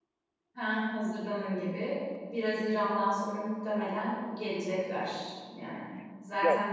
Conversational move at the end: listening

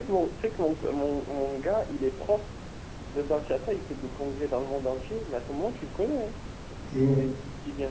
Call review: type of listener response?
listening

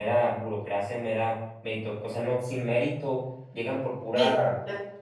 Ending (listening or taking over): listening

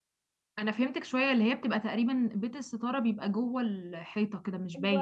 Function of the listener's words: taking over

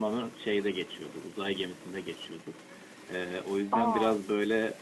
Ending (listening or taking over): listening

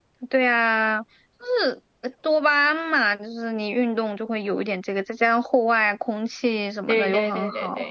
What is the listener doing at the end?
taking over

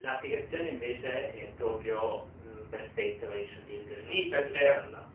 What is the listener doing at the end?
taking over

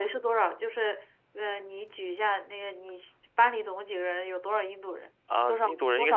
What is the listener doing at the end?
taking over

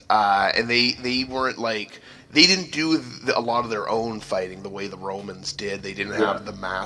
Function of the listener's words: listening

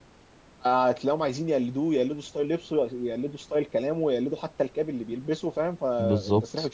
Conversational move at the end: listening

